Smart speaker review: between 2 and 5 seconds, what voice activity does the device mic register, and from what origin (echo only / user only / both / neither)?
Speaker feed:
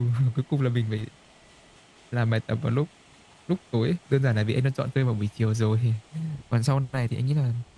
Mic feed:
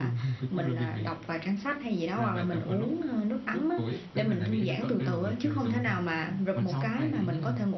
both